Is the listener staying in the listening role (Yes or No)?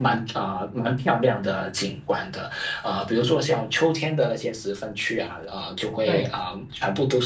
Yes